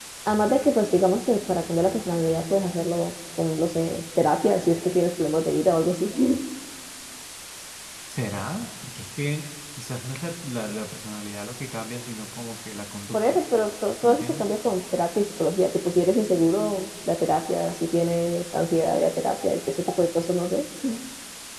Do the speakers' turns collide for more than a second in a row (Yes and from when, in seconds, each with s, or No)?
No